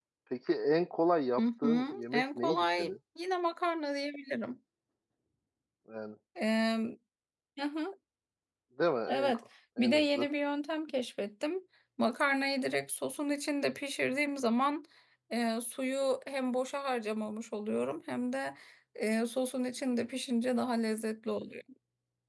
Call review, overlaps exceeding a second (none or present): present